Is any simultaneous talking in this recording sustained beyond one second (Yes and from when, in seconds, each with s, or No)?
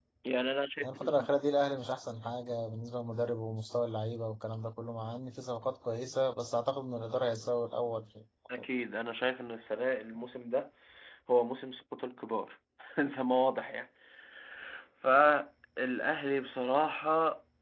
No